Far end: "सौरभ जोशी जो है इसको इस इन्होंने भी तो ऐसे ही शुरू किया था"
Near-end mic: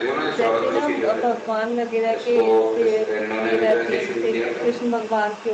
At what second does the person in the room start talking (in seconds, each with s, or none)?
0.4 s